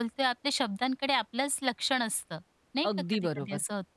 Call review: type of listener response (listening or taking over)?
taking over